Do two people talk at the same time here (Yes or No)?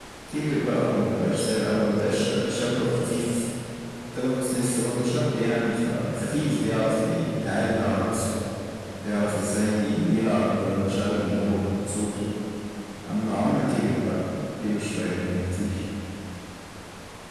No